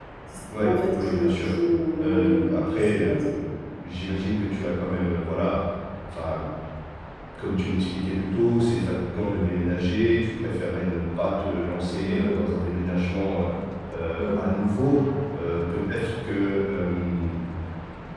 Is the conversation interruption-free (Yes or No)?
No